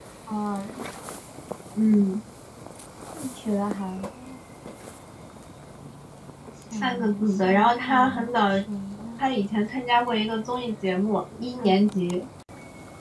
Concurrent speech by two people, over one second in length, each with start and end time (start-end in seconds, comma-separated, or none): 6.7-8.5